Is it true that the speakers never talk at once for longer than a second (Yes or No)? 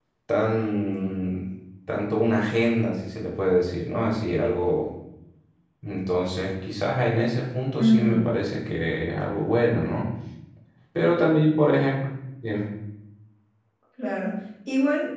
Yes